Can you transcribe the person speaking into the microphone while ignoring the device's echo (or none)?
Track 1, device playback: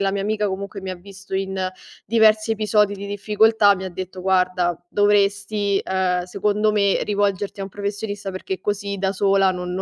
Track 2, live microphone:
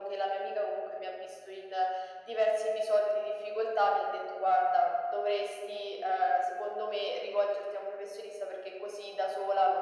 none